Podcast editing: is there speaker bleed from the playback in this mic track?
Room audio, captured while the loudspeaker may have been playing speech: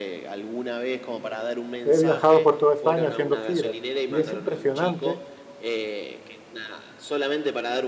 Yes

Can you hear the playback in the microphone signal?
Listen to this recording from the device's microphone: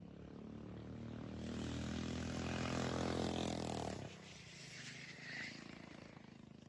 No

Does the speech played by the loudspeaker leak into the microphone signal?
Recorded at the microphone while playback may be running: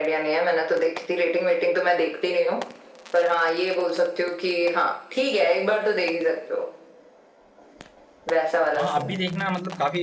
Yes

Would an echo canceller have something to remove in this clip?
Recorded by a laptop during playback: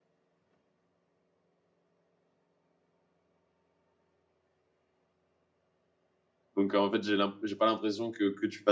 No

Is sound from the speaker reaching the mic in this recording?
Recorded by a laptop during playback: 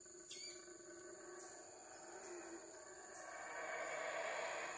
No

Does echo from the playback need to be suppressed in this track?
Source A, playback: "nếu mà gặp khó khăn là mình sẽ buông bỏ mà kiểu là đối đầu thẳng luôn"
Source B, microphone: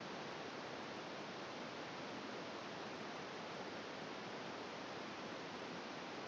No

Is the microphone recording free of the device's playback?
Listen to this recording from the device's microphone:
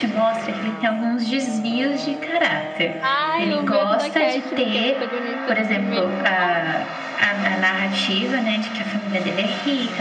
No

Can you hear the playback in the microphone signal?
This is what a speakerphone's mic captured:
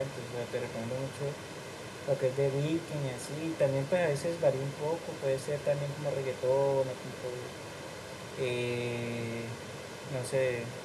Yes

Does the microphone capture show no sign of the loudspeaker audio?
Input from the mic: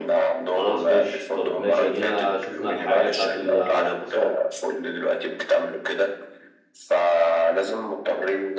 No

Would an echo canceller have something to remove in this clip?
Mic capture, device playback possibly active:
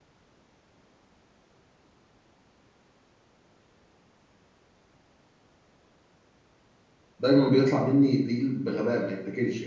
No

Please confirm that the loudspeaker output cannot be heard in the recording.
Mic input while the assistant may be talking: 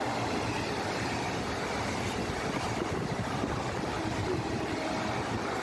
Yes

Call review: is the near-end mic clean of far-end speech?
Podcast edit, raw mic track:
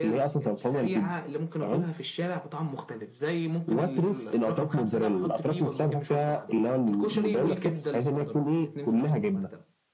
No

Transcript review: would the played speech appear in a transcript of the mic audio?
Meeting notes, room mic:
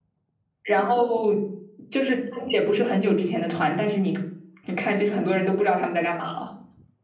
No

